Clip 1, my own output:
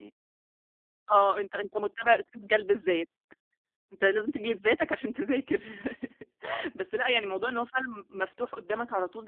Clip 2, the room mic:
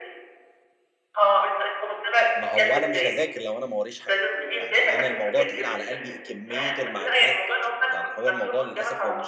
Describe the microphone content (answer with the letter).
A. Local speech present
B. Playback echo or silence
A